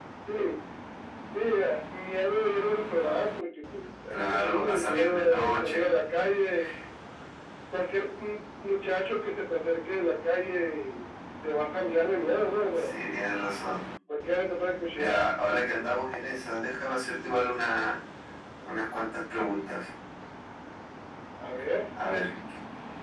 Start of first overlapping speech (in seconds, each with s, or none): 4.1 s